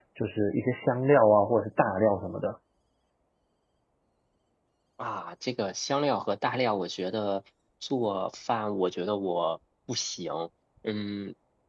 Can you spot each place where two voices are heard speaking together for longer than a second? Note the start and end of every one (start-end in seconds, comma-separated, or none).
none